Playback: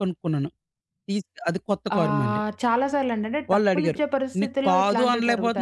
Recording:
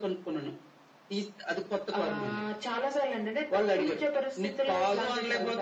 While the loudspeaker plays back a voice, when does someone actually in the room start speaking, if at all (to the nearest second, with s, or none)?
none